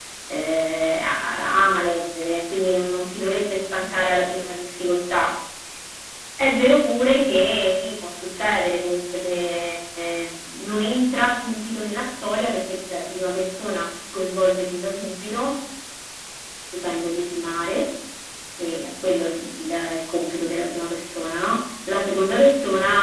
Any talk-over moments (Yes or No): No